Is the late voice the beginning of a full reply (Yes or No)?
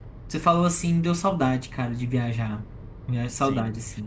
Yes